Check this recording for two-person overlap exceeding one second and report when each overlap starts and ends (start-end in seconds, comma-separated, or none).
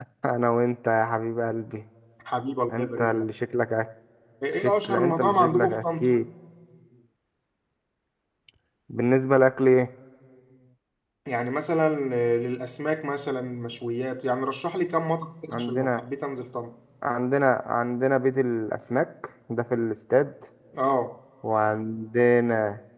4.6-6.1